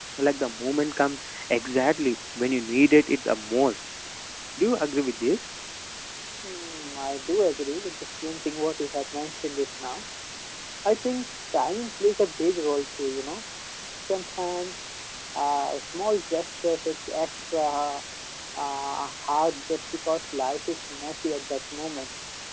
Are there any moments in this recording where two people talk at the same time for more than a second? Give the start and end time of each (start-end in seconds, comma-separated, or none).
none